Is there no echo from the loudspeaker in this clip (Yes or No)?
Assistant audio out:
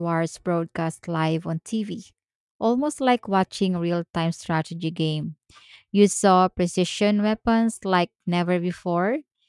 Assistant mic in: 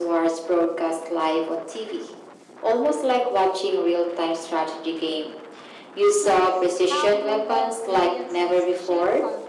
No